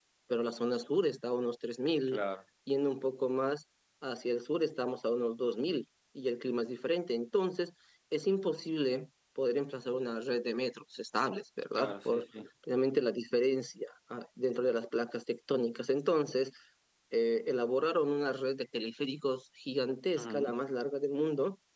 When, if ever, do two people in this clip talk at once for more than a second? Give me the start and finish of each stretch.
none

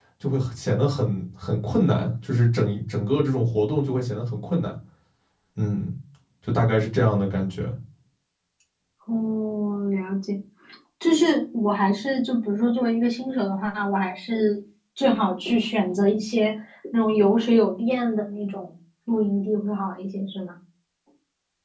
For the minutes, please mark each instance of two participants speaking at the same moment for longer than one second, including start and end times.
none

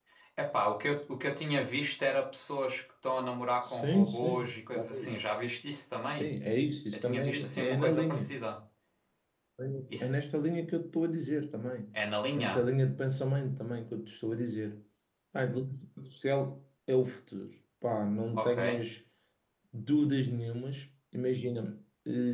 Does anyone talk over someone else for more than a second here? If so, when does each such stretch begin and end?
3.6-5.1, 6.9-8.3

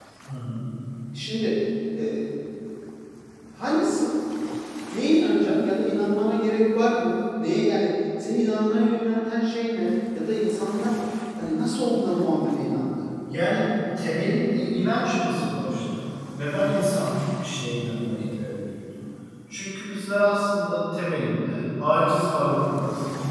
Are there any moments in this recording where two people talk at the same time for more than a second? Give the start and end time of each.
none

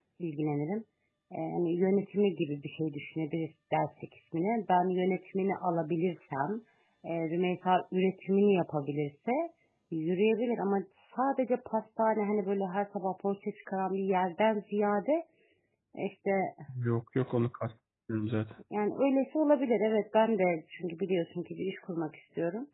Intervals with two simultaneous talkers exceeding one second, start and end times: none

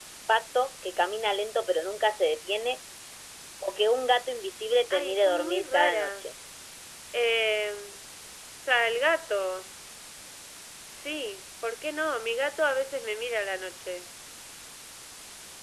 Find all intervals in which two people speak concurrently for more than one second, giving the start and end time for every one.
4.9-6.3

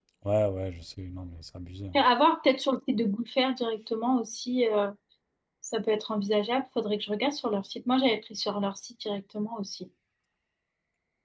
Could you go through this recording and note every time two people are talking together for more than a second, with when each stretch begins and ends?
none

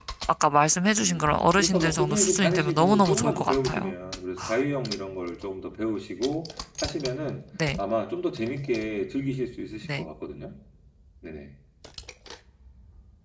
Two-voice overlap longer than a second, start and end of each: 1.0-3.9

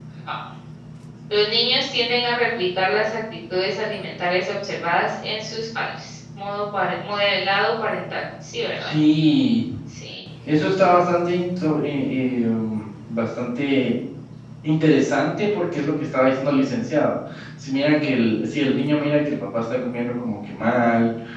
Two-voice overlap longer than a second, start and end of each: none

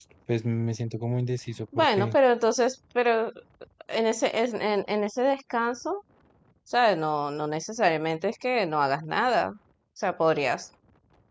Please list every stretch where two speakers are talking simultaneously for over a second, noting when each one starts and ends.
none

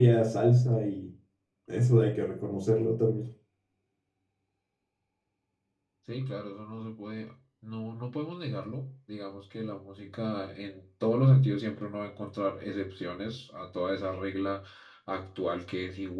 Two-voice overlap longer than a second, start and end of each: none

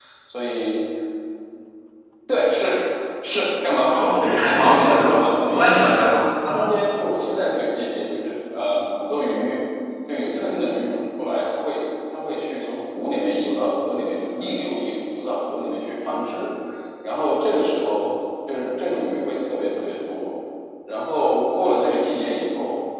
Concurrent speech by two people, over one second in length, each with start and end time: 3.9-6.1

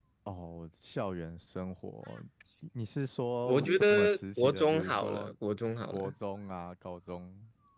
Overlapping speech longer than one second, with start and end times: 3.4-5.3

